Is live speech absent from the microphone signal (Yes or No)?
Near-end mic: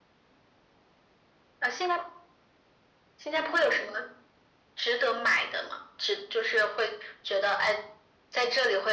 Yes